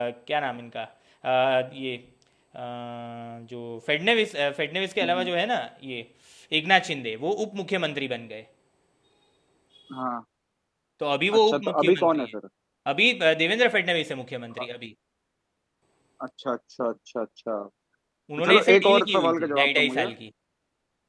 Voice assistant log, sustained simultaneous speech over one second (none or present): present